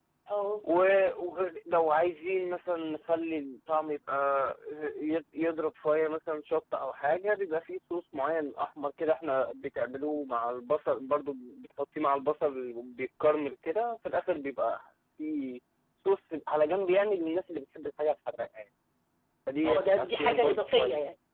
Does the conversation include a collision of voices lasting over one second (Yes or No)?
Yes